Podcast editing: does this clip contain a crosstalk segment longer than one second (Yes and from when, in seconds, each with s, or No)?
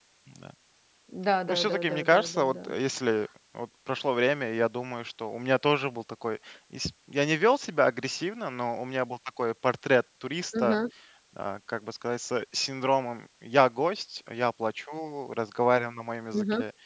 Yes, from 1.5 s